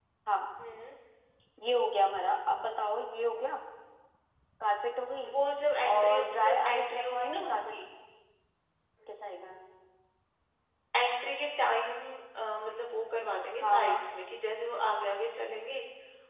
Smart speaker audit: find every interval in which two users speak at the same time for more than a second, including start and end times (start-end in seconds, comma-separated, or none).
5.9-7.7